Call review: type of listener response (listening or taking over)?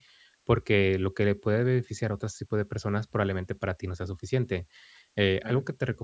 listening